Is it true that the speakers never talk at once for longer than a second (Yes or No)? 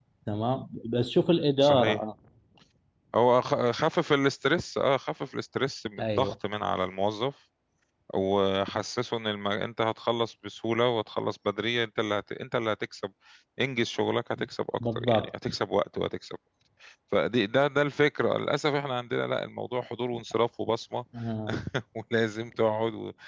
Yes